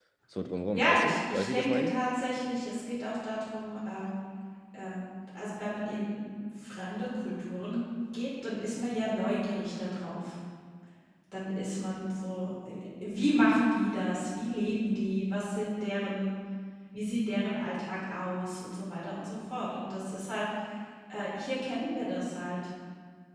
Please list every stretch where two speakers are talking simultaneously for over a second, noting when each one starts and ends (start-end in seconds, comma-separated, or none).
0.7-2.0